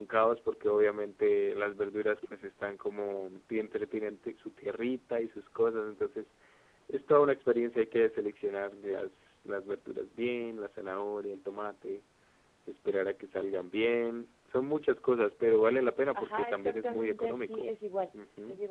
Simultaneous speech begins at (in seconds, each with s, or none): 16.2 s